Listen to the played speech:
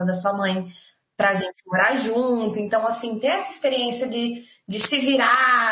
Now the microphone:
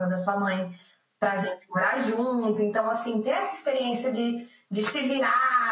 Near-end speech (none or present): none